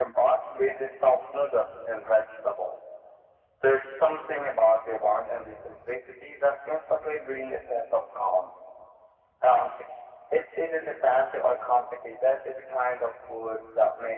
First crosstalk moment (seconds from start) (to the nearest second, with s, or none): none